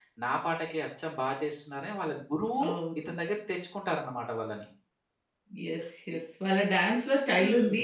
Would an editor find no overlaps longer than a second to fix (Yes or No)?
Yes